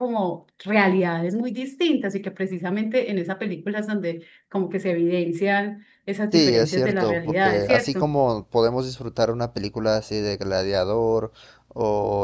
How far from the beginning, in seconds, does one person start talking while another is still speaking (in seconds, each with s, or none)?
6.3 s